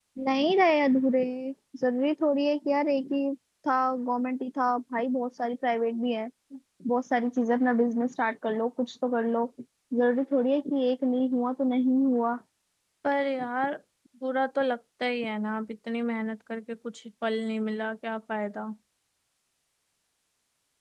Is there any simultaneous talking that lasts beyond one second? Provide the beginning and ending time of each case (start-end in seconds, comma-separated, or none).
none